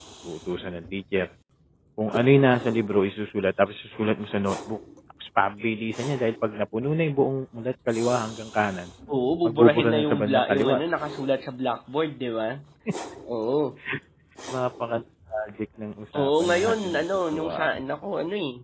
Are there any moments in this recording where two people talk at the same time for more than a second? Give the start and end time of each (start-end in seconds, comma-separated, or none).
9.4-10.8, 16.1-17.7